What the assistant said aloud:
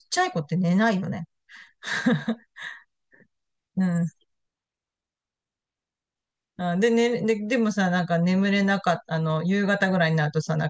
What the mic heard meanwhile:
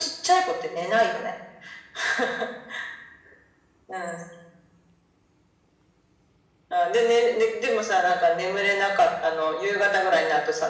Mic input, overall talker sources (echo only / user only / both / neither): echo only